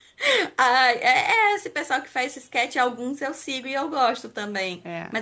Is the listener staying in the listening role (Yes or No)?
Yes